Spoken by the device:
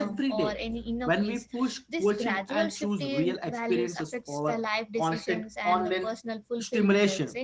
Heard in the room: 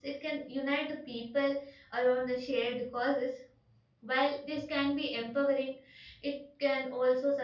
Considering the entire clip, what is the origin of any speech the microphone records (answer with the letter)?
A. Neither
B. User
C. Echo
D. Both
B